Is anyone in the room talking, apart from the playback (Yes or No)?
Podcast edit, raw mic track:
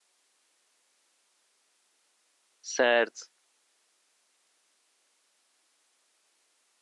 Yes